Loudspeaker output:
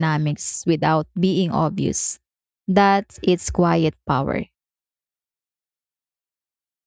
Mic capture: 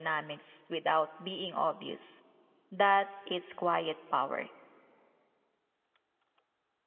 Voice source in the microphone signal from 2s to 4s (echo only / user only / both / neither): echo only